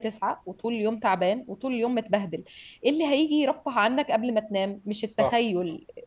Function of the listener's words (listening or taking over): listening